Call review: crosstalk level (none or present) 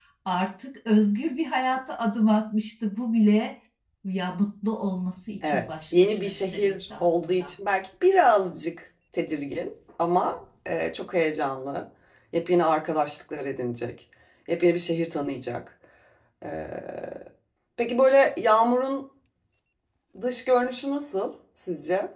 present